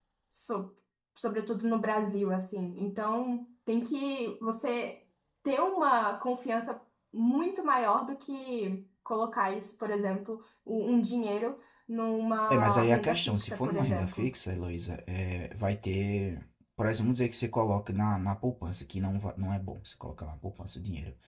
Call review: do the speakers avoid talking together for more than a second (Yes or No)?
No